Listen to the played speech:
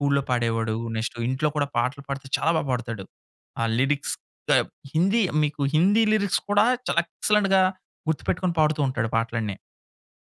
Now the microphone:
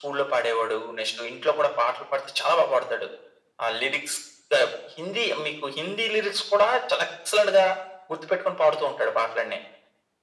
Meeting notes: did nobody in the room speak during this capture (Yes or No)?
Yes